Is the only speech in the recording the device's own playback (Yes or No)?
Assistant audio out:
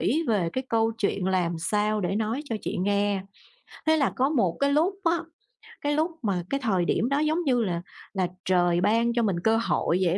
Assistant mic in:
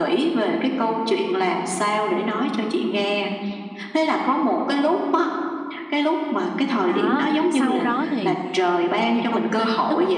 No